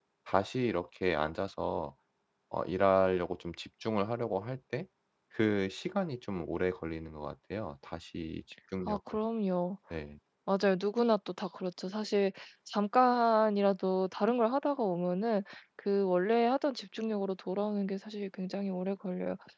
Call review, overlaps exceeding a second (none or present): none